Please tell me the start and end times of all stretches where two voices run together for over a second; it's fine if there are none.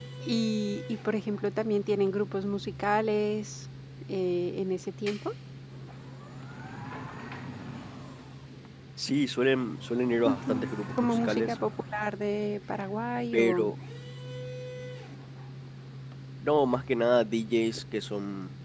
10.2-11.6

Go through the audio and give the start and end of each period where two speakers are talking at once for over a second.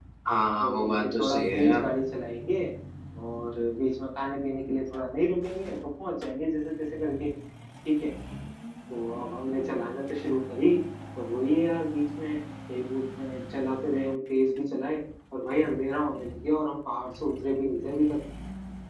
0.6-1.9

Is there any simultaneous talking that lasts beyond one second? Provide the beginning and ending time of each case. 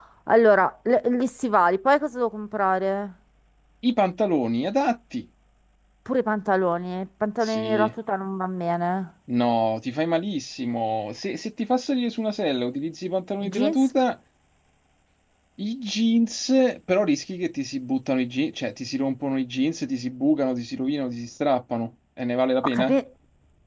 none

